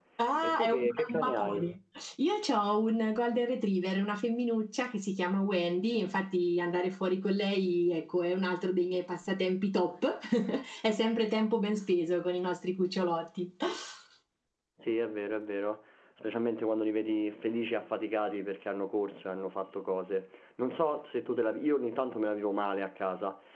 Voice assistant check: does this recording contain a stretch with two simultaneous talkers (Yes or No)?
Yes